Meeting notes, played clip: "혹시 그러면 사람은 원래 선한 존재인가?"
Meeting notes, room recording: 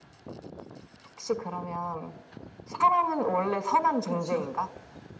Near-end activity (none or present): present